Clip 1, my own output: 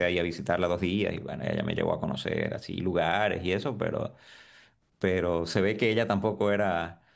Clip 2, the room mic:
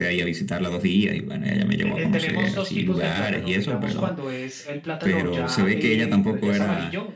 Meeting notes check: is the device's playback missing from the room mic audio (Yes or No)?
No